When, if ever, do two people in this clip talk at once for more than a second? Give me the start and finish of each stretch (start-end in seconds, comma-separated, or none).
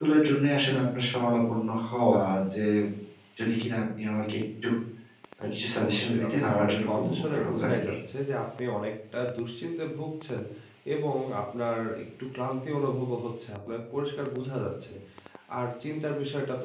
5.8-7.9